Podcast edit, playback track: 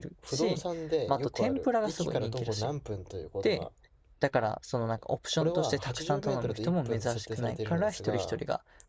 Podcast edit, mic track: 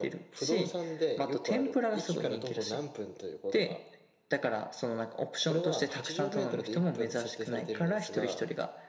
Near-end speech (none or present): none